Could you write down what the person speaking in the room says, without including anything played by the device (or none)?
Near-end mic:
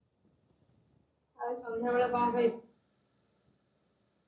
ଆଉ ସନ୍ଧ୍ୟାବେଳେ କଣ ଖାଇଚୁ?